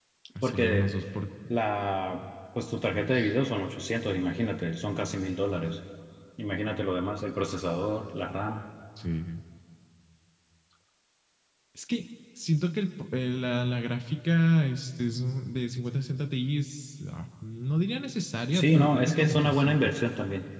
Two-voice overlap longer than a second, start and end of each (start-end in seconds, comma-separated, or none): 18.5-19.9